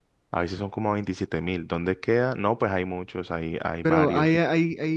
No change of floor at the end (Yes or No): No